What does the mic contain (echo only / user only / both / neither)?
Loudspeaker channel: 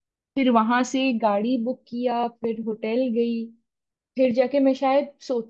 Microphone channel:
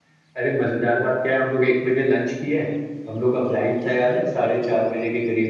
user only